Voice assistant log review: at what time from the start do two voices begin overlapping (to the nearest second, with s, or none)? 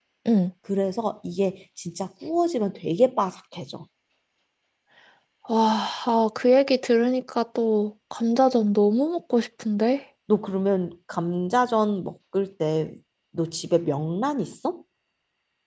none